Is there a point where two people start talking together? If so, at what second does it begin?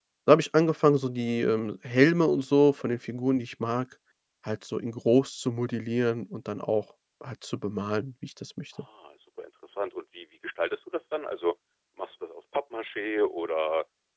none

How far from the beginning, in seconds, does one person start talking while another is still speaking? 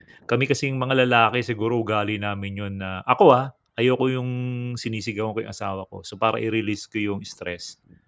none

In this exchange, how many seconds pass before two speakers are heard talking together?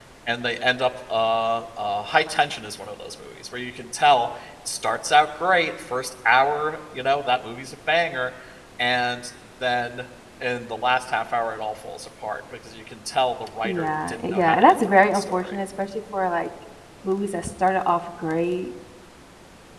13.6 s

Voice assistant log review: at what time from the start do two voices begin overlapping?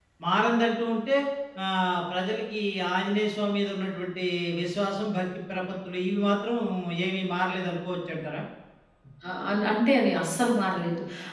none

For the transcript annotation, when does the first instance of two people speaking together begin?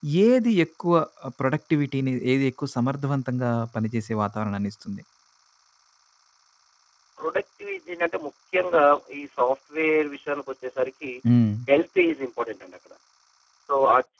none

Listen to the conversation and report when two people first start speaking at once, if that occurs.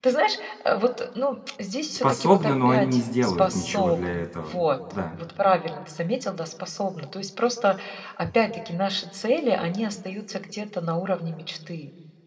1.9 s

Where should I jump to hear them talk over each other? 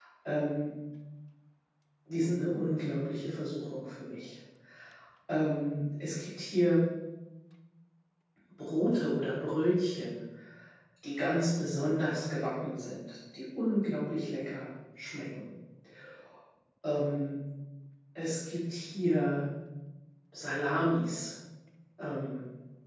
none

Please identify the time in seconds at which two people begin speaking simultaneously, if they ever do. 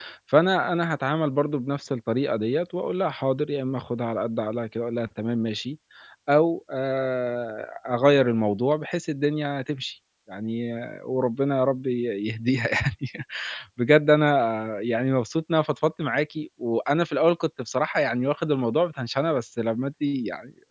none

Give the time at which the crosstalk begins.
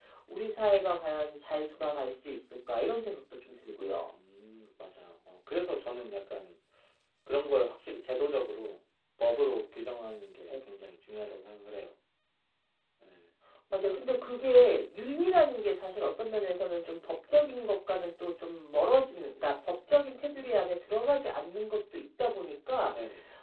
none

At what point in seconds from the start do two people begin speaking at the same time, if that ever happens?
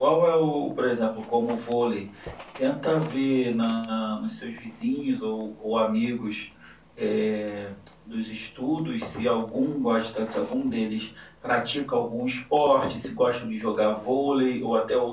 none

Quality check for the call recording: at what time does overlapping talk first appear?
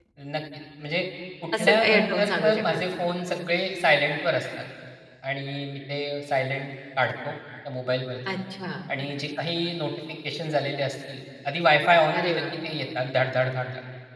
1.6 s

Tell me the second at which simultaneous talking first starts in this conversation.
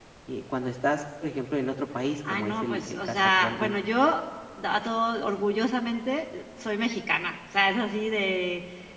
2.2 s

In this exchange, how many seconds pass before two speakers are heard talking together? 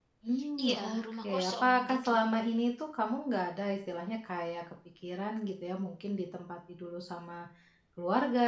0.6 s

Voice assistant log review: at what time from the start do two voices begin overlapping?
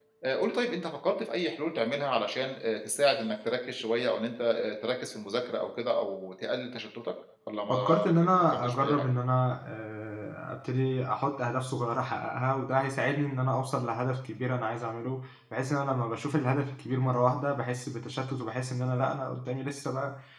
7.7 s

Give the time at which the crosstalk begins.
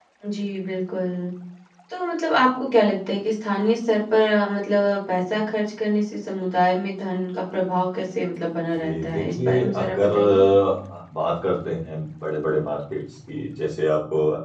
8.8 s

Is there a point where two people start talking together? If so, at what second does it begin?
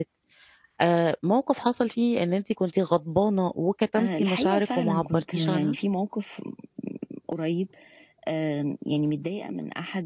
4.0 s

